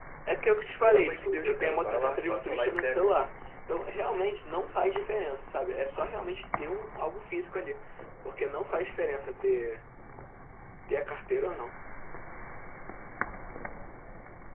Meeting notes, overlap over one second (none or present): present